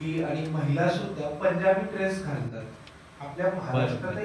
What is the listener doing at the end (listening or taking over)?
listening